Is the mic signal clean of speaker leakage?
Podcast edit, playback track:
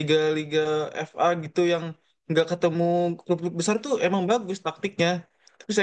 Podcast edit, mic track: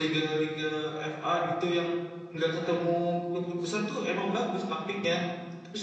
No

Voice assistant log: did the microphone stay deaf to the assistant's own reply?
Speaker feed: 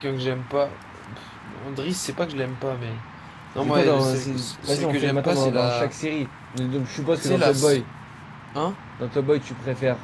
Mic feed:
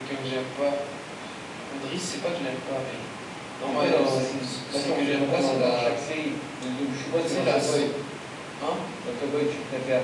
No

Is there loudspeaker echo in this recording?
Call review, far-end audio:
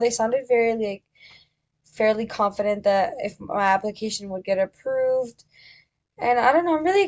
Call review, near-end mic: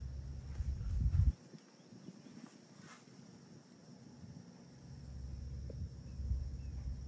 No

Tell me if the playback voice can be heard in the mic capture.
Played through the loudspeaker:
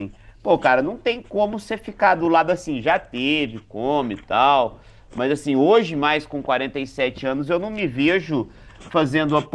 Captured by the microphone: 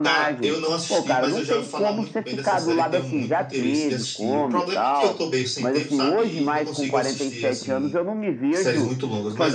Yes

